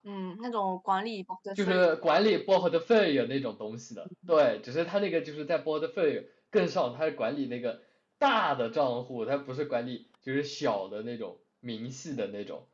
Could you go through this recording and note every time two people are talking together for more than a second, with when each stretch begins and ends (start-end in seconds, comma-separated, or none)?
none